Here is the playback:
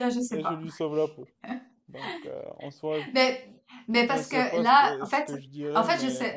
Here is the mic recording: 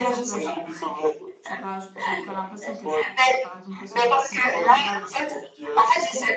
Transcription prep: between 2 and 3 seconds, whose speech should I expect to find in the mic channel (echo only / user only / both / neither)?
both